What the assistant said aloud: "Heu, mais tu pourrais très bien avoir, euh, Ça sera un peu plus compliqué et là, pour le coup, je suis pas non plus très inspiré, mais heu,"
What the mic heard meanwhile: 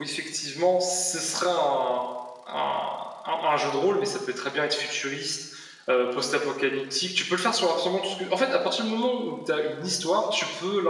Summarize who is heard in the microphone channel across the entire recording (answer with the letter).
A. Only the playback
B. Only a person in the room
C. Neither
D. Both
B